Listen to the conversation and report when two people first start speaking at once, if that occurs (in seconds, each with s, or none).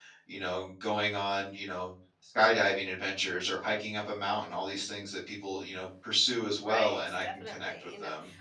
6.6 s